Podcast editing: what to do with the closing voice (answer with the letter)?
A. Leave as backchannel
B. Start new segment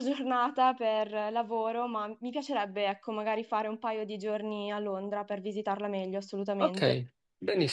B